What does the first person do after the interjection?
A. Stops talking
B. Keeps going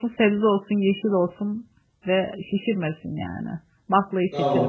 A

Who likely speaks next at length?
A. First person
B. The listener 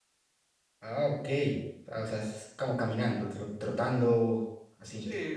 B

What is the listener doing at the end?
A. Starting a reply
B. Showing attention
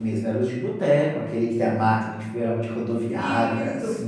A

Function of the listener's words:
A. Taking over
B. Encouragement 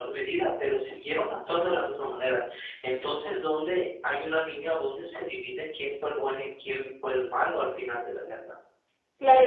A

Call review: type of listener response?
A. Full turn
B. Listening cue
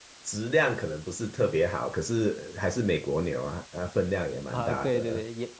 A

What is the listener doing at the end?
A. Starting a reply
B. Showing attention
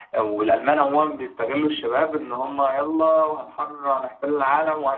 B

